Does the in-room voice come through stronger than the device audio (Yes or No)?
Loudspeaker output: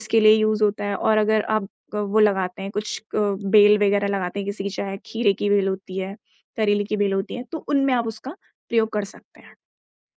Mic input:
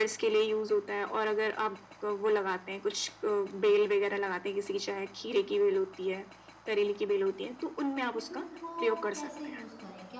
No